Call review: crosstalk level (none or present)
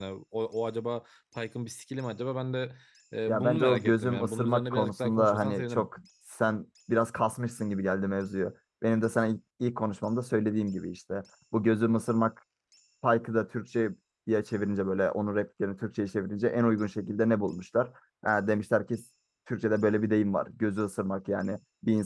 present